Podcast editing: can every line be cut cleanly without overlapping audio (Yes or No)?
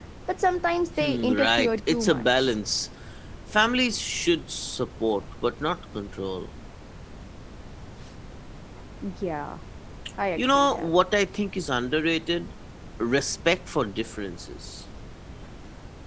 No